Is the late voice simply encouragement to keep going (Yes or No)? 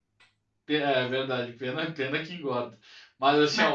Yes